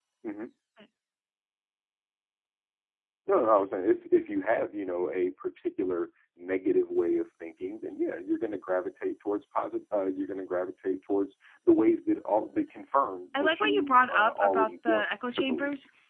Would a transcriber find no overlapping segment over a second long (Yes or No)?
No